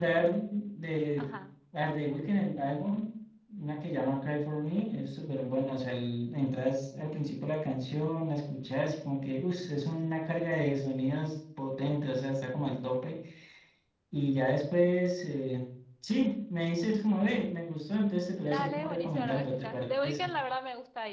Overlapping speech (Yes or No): Yes